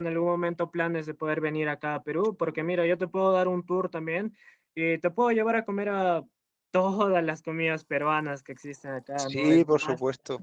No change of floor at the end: No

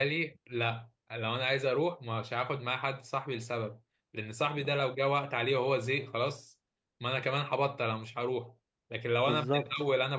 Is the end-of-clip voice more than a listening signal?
No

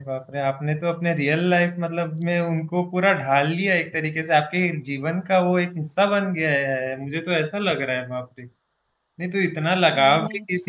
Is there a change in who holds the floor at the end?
No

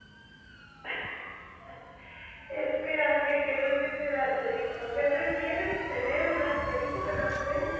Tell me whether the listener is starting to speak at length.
Yes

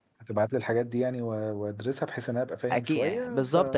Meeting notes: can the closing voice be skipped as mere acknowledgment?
No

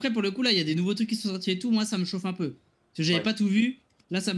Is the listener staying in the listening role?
Yes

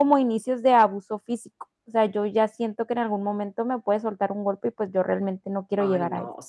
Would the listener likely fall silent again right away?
No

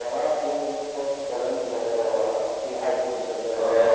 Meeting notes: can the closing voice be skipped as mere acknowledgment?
No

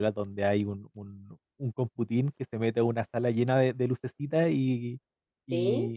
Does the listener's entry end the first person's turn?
No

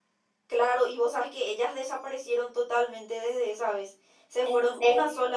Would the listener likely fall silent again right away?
Yes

